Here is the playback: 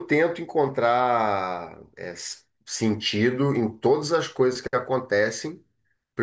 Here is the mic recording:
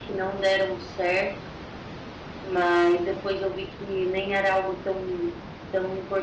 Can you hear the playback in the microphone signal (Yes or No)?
No